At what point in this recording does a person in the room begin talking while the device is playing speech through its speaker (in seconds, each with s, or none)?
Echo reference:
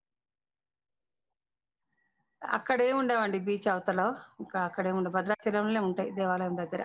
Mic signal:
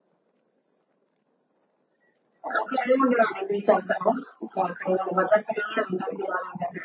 none